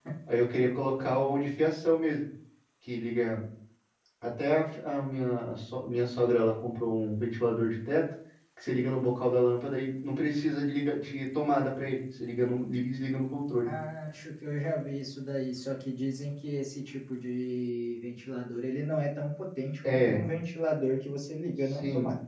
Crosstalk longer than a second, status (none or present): none